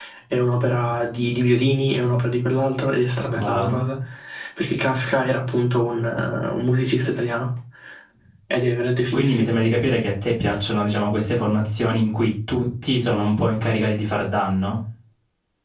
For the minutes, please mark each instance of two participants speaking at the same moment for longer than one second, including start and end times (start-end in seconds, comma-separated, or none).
none